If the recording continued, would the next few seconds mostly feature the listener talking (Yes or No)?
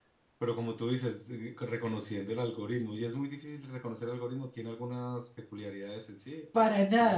Yes